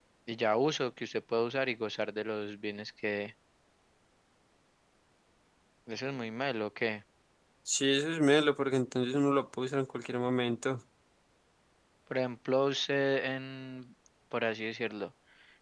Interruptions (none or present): none